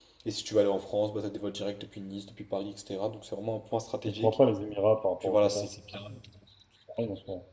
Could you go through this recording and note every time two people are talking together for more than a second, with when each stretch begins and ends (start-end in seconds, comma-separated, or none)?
none